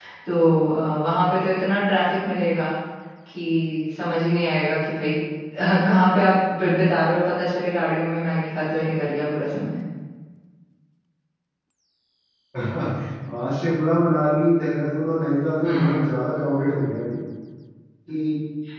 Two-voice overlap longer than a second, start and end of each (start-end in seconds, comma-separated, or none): none